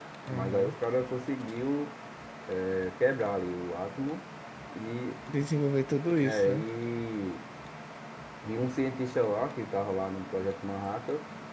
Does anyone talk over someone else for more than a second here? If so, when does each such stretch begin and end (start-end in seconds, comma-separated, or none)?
none